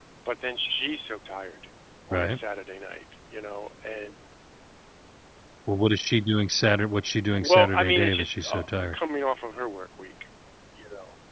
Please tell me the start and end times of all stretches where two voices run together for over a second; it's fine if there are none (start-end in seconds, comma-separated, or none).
7.4-8.9